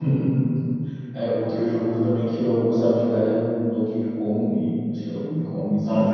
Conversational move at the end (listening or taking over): taking over